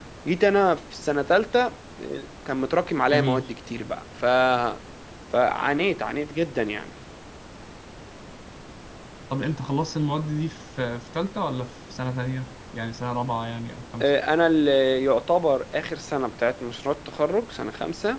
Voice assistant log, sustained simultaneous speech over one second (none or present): none